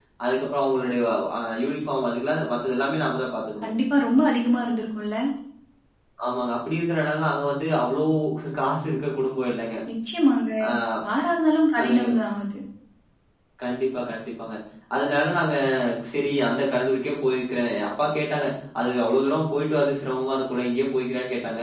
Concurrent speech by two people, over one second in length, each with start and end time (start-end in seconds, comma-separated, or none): none